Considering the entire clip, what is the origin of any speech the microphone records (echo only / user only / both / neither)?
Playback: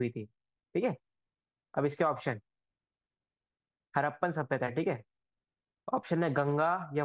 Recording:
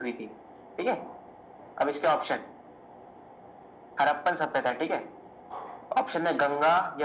echo only